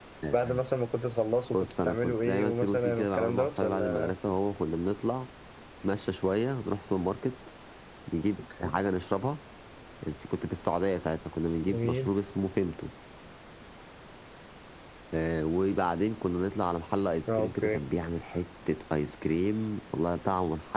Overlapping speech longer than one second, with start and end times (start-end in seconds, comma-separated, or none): 1.5-4.1